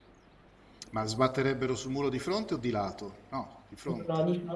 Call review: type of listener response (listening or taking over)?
taking over